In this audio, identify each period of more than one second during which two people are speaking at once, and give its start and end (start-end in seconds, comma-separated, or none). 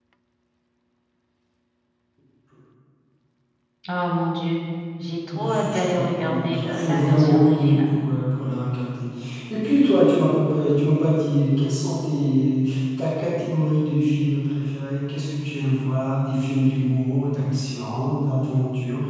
5.3-7.9